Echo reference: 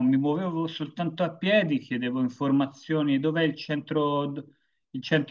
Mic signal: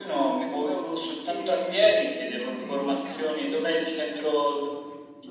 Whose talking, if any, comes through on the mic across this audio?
both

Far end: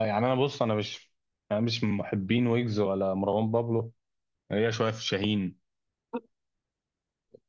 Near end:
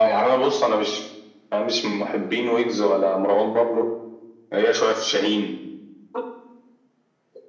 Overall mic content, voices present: echo only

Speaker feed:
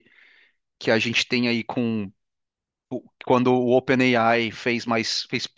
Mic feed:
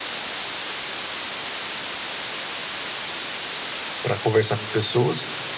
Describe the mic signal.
user only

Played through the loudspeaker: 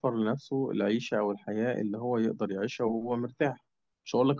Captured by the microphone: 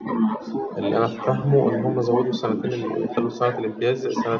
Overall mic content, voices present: both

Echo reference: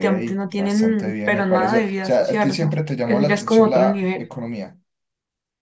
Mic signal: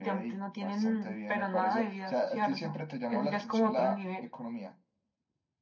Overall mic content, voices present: echo only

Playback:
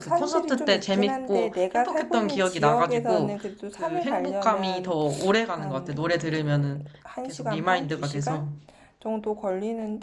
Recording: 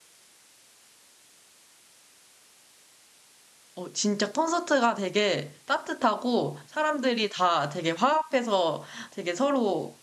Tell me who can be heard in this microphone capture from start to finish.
user only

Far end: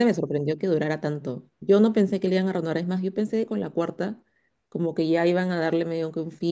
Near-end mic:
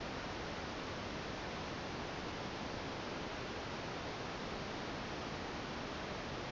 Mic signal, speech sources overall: neither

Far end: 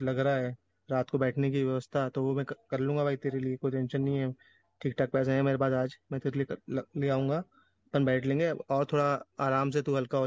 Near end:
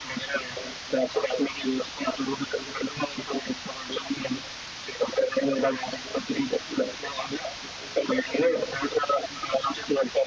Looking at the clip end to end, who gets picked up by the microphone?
echo only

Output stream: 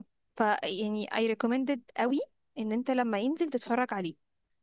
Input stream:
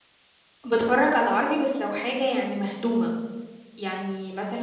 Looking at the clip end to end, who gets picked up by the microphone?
user only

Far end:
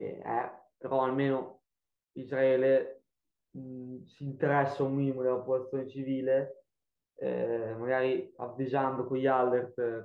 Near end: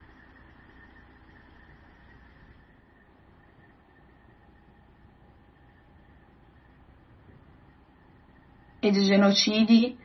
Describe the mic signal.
user only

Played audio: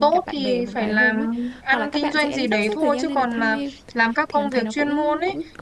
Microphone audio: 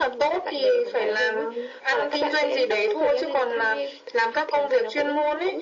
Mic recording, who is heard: echo only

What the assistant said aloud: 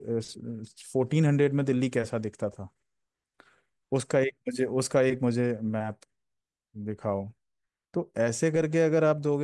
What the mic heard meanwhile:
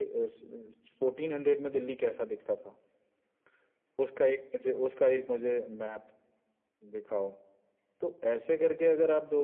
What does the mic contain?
echo only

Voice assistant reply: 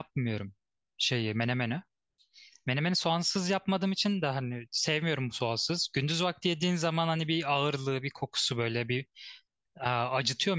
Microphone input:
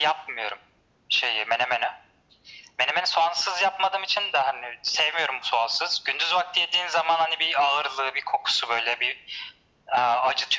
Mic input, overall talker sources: echo only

